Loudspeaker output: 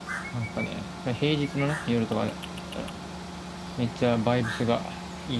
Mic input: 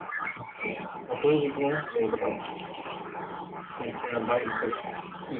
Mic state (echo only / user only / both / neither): both